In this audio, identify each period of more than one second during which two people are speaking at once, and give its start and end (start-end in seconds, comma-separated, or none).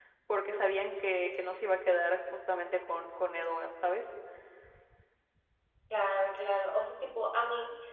none